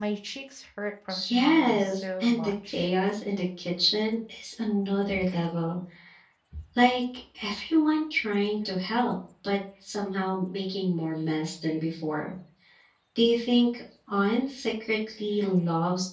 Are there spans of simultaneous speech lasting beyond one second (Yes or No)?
Yes